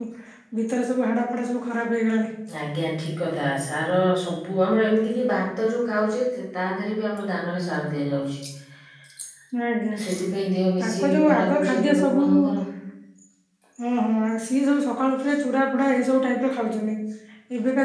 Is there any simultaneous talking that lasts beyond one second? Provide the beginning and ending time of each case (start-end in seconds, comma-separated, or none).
10.8-12.2